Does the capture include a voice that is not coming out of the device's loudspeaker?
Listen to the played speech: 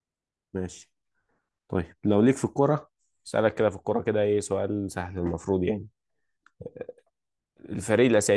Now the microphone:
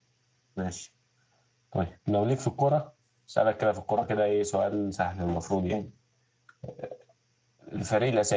No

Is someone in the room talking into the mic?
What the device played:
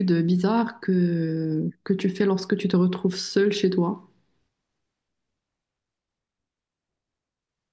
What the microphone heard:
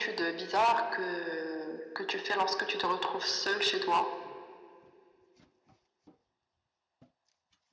No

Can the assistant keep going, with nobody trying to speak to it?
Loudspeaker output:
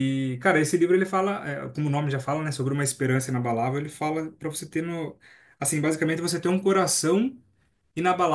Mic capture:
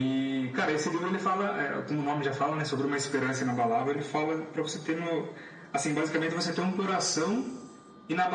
Yes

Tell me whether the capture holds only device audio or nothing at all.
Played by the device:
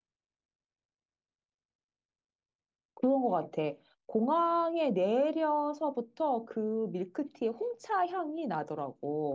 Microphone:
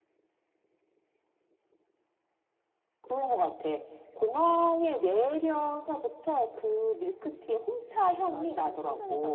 No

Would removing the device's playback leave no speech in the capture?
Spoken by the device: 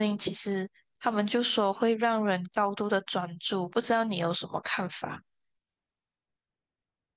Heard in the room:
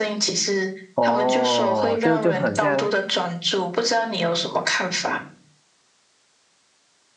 No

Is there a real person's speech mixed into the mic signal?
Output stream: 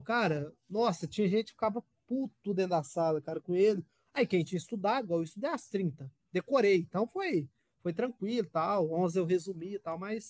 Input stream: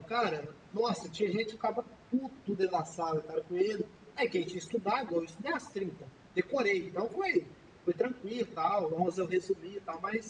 No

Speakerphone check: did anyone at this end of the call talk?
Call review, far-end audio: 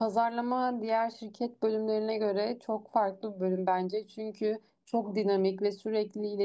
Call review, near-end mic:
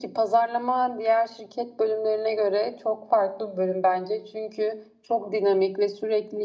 No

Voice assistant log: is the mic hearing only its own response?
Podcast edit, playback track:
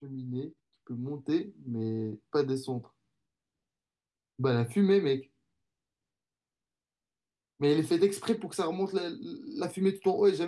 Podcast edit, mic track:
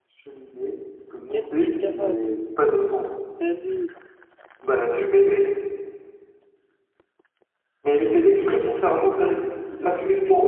No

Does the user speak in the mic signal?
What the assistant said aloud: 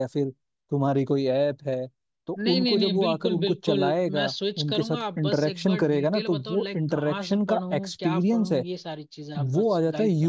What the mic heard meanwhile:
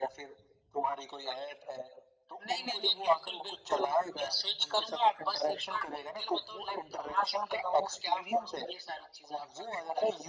No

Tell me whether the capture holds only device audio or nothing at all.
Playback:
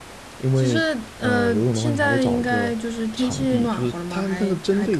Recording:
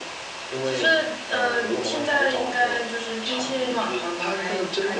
Yes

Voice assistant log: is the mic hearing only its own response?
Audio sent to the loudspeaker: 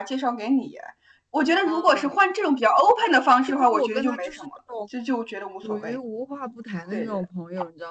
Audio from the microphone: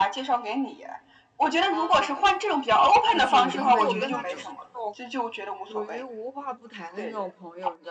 No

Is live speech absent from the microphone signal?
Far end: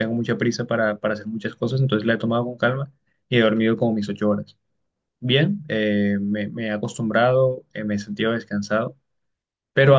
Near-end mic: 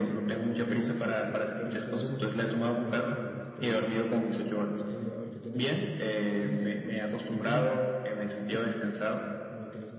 No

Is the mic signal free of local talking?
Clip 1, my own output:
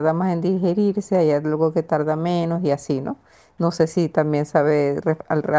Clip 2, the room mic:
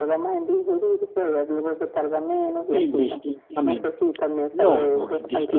No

